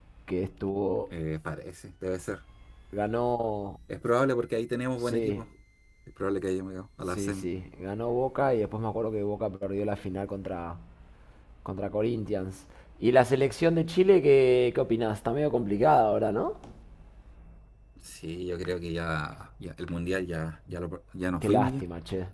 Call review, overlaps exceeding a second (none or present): none